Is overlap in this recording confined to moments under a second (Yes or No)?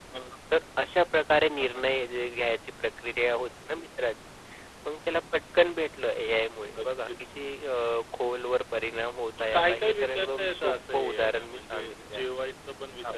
No